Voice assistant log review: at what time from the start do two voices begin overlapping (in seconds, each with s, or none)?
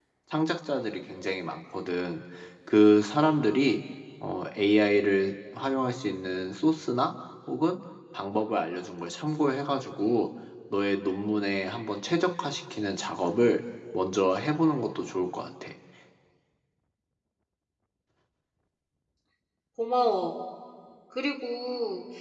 none